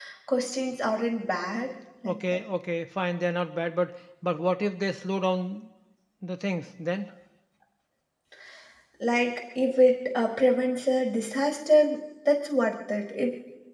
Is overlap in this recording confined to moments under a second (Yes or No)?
Yes